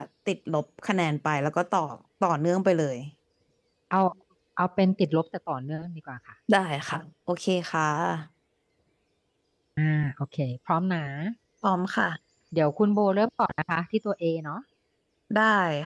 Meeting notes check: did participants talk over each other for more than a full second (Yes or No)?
No